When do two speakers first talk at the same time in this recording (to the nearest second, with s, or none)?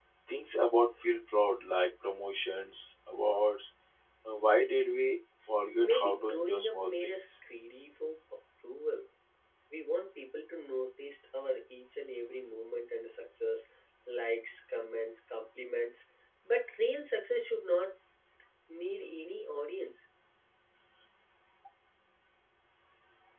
6 s